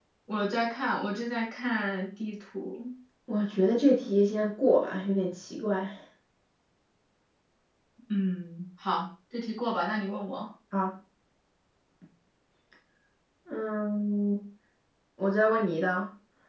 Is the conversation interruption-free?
Yes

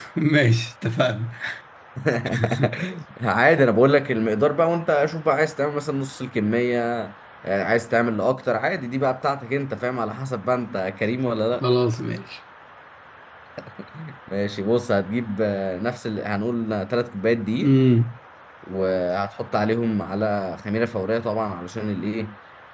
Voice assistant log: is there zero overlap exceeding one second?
Yes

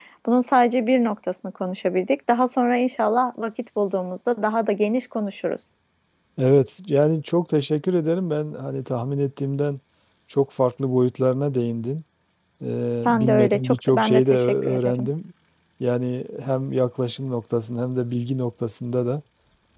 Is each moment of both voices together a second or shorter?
No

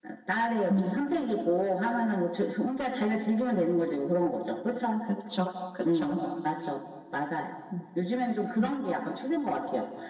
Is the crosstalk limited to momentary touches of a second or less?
Yes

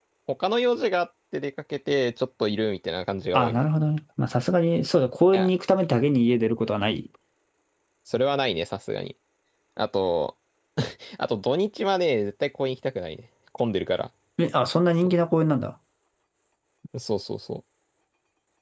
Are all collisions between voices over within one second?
Yes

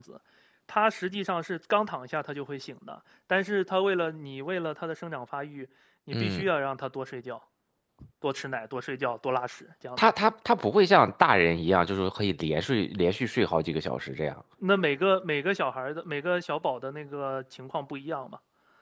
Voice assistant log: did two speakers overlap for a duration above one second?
No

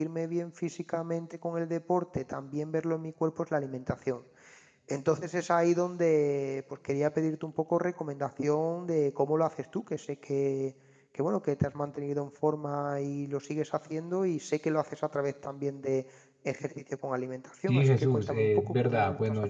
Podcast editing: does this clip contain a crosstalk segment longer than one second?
Yes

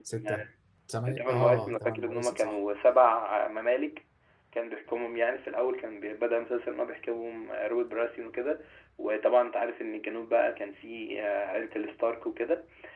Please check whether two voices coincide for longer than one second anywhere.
Yes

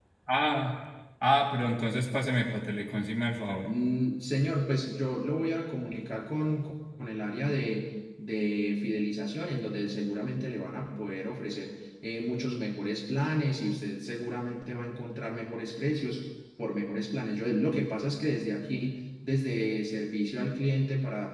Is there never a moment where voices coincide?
Yes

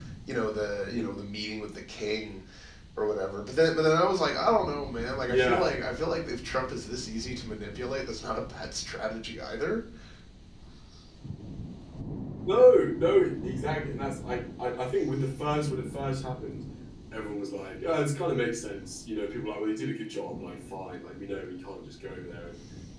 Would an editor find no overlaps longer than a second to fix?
Yes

